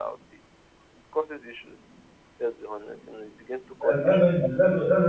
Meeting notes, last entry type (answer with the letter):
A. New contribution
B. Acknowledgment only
A